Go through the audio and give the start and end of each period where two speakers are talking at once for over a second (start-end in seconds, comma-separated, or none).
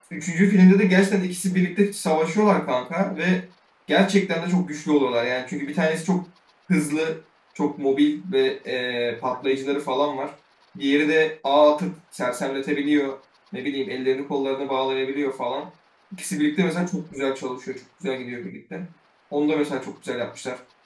none